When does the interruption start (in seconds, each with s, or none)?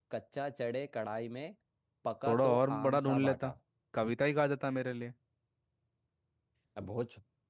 2.2 s